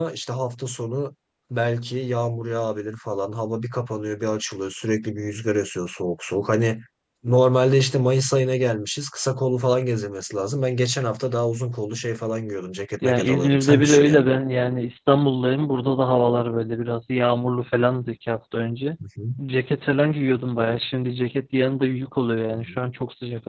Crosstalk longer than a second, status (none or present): present